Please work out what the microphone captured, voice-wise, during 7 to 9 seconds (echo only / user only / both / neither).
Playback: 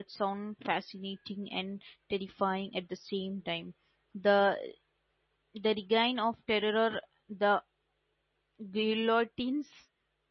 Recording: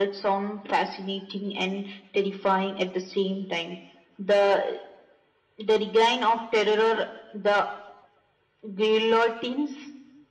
echo only